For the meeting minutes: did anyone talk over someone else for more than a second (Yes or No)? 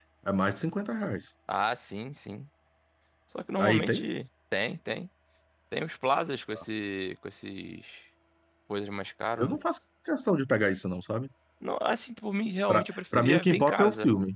Yes